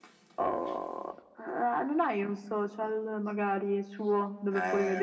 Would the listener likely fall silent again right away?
No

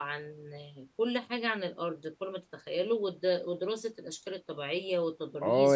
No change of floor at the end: No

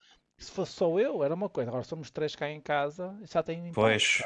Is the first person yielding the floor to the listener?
Yes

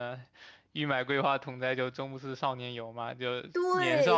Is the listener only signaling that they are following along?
No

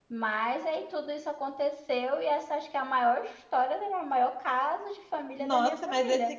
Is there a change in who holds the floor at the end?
Yes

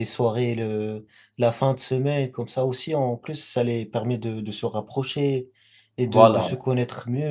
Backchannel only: Yes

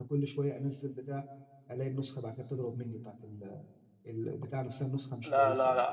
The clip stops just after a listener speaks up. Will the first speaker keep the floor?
No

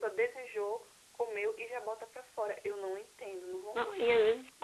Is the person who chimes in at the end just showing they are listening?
No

